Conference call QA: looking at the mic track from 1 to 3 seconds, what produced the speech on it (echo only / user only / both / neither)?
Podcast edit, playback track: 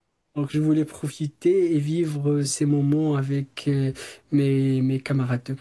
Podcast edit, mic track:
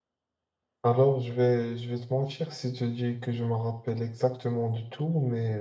user only